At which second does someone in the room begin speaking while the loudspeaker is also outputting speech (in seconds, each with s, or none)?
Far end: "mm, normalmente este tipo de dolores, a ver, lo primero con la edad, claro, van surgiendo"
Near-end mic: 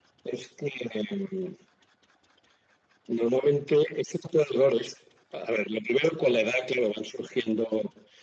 none